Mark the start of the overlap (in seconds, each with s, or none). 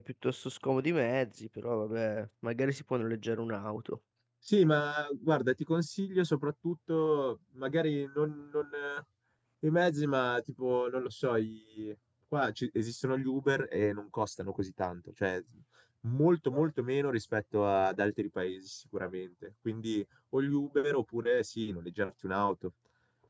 none